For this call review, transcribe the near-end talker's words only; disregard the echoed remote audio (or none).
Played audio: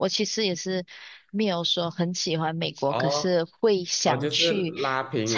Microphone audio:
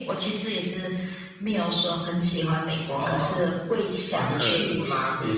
嗯，什么？